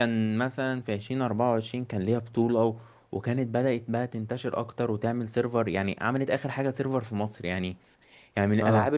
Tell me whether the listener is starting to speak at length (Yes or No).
No